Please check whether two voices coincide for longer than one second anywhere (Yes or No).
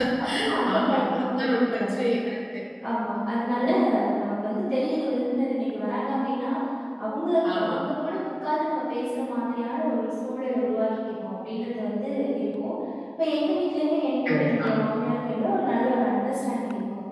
Yes